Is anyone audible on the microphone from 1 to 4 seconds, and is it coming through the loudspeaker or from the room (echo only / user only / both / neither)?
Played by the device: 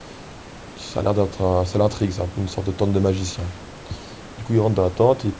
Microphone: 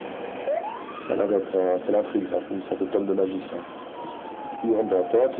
echo only